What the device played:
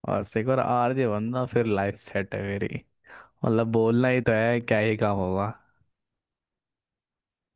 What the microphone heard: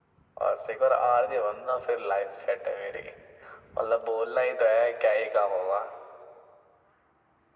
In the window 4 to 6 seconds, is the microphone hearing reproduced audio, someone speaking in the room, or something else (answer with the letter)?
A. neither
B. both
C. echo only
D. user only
C